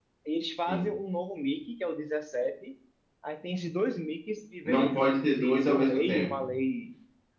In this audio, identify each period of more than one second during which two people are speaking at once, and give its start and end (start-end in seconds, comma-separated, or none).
4.7-6.5